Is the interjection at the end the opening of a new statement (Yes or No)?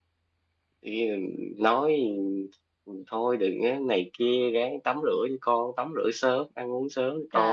Yes